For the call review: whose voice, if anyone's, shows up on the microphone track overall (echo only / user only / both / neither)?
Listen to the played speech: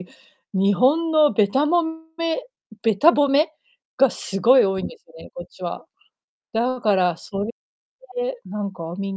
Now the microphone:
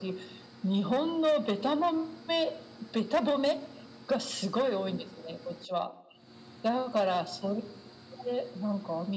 echo only